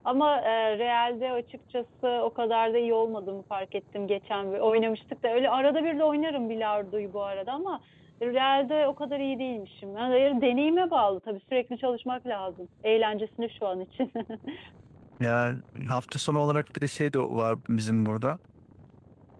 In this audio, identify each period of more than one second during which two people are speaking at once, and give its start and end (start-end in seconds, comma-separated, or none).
none